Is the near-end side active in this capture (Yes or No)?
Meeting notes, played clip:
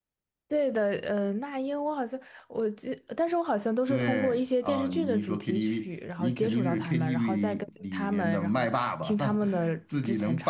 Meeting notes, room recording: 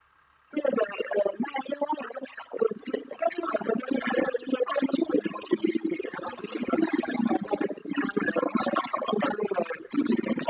No